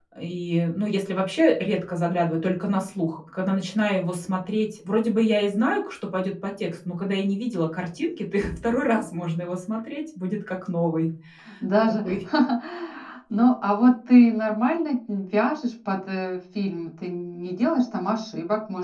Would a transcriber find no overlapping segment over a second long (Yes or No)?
Yes